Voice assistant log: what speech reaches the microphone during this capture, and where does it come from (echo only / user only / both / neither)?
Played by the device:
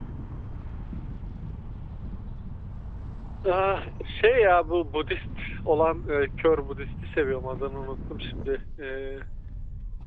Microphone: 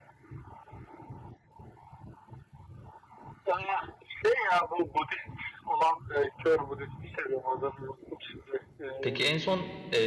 both